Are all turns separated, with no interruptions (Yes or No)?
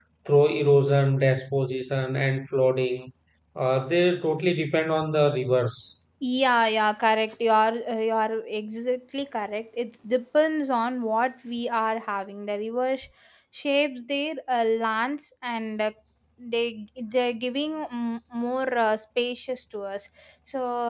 Yes